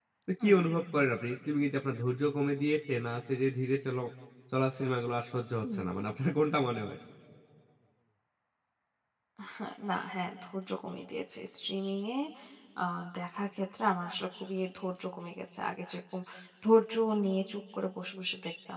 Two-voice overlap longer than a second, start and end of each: none

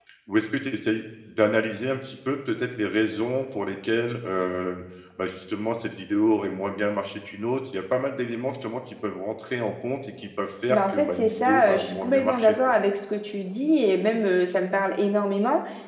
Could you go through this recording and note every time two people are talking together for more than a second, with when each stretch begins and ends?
10.7-12.6

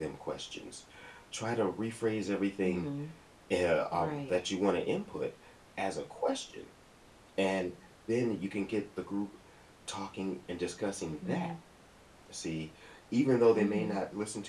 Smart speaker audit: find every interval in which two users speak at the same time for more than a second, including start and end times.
none

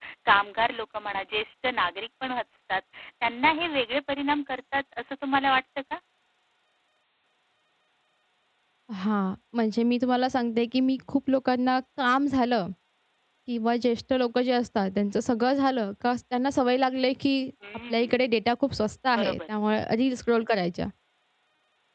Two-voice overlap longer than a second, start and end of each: none

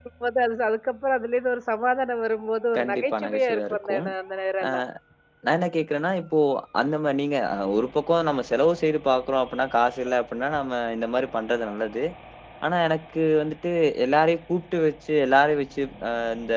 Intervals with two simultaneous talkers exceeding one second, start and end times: 2.8-4.0

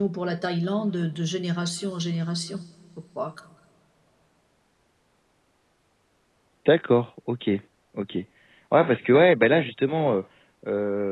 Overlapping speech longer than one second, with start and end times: none

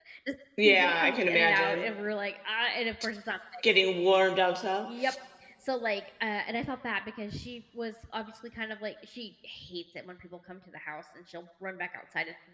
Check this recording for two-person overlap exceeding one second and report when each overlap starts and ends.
0.6-1.9

